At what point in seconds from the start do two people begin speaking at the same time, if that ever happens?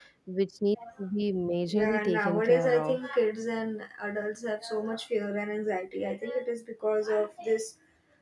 2 s

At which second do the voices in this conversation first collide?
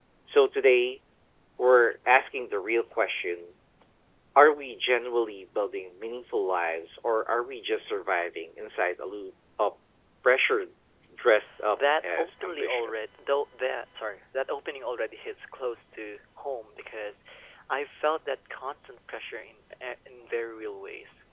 12 s

